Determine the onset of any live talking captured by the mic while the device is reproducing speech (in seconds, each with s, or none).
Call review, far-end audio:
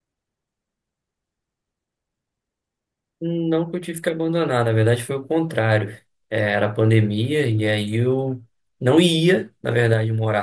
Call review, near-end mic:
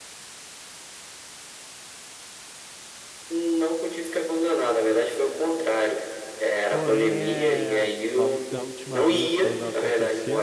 6.7 s